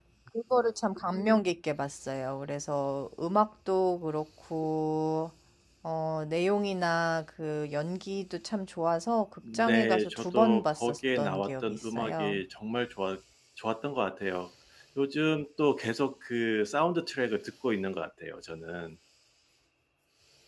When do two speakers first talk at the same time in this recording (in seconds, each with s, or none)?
9.4 s